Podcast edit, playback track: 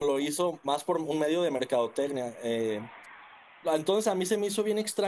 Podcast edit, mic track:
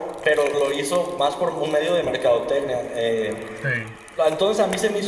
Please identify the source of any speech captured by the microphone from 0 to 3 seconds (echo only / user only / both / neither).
echo only